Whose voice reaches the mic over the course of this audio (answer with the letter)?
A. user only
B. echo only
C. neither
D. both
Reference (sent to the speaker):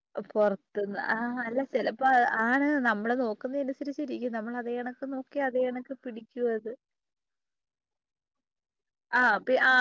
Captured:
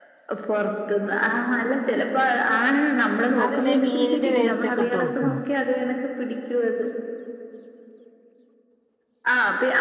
D